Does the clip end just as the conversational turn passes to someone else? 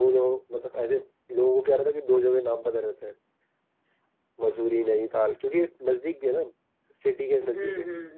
Yes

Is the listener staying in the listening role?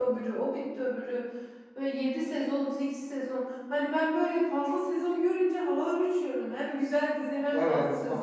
No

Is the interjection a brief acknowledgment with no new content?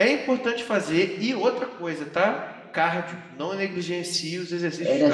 No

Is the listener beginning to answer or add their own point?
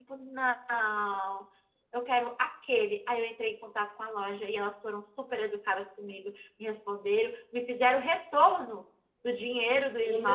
No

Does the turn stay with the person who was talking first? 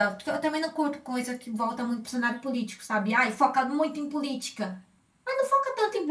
Yes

